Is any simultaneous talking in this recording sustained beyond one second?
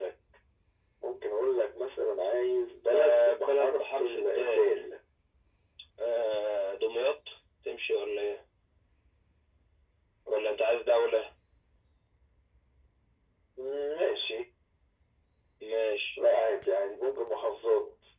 Yes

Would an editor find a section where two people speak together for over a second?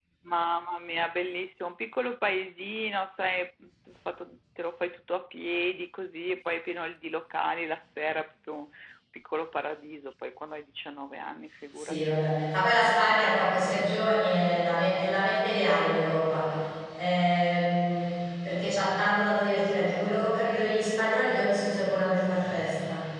No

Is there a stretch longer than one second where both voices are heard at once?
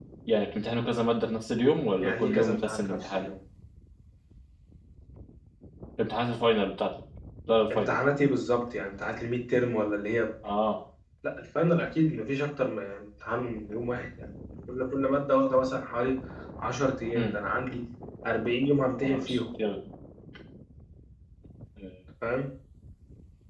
Yes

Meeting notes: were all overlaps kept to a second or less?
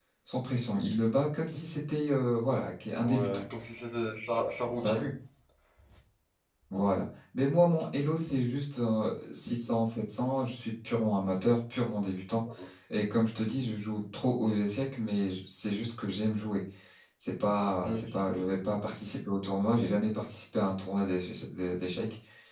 Yes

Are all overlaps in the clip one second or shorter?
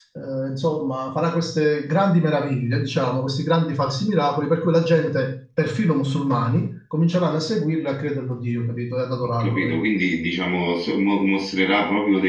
Yes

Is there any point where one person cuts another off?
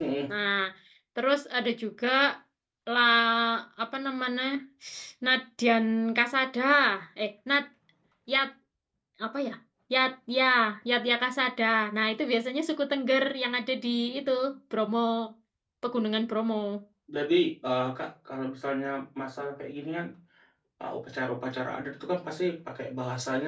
No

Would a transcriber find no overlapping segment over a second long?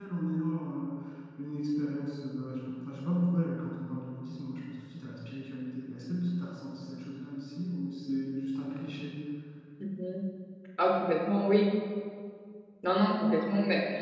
Yes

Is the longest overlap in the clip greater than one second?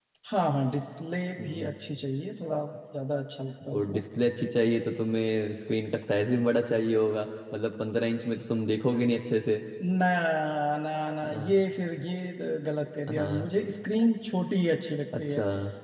No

